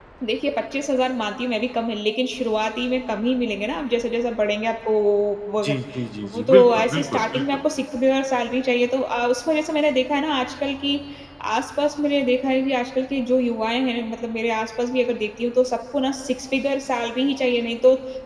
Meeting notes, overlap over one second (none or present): present